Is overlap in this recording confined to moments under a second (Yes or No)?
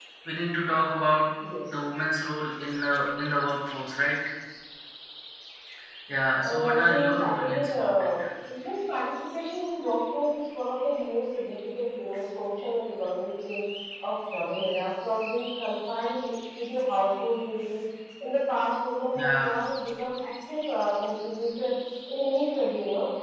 No